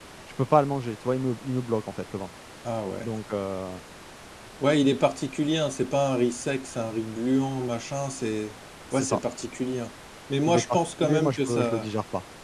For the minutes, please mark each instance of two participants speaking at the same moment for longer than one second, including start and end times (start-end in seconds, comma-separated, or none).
10.5-11.9